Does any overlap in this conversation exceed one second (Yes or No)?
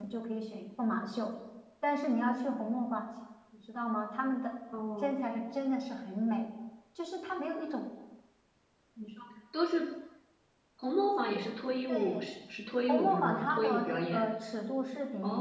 Yes